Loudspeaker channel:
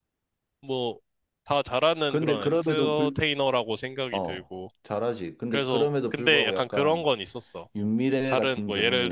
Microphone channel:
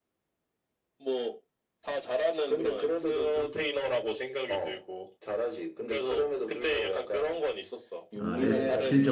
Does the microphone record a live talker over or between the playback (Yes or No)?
Yes